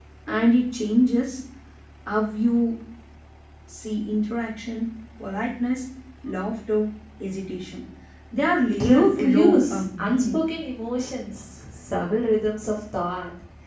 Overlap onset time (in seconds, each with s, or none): 8.8 s